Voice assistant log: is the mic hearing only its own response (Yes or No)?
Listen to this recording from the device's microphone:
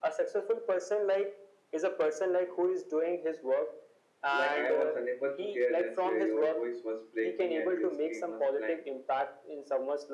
No